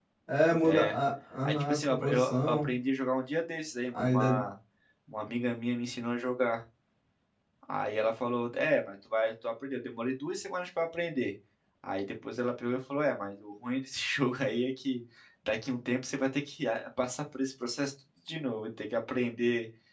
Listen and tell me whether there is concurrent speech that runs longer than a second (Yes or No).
Yes